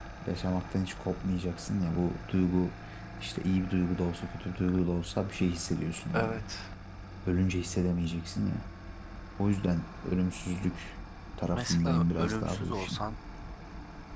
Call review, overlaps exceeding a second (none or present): present